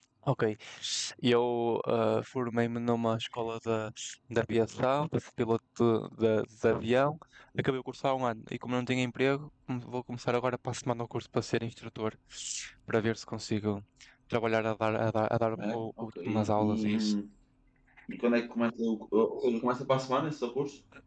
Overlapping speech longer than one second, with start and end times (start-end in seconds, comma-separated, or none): 15.6-17.1